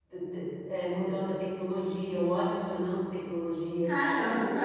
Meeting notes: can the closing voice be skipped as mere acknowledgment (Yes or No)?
Yes